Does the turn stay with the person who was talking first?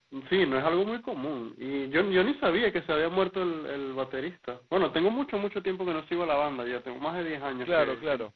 No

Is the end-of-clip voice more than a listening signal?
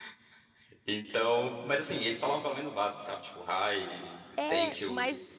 Yes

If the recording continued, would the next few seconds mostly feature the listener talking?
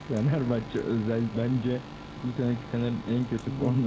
Yes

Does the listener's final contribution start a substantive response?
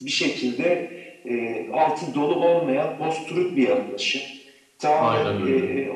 No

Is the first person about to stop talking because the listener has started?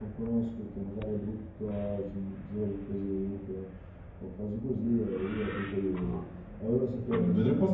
Yes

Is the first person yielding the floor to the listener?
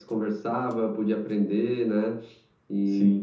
No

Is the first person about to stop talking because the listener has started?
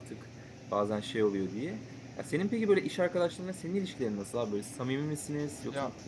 Yes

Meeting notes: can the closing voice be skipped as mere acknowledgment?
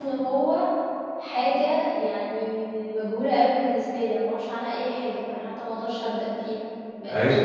No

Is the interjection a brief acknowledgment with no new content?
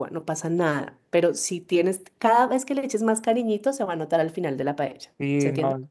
No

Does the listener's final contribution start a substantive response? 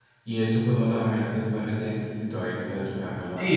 Yes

